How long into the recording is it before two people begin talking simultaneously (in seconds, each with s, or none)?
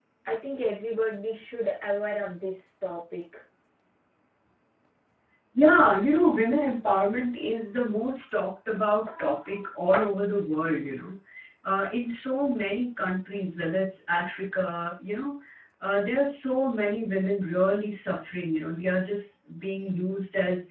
none